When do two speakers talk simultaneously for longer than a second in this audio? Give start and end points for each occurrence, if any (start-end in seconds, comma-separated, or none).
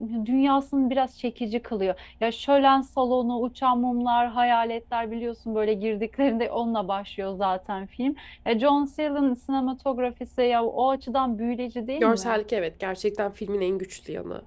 none